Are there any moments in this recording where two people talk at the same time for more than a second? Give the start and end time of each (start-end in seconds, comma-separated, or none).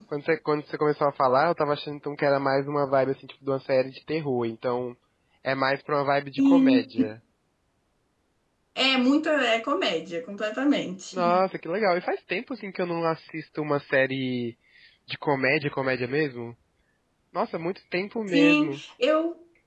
none